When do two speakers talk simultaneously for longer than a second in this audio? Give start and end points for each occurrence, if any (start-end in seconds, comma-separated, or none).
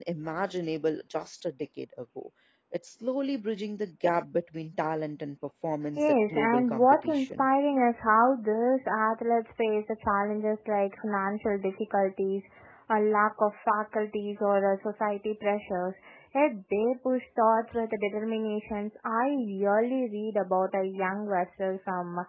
6.0-7.5